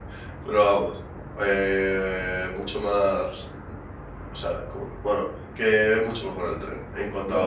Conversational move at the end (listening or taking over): taking over